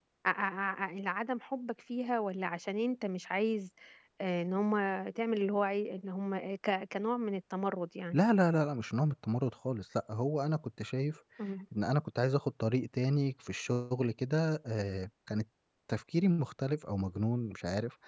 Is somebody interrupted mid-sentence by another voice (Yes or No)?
No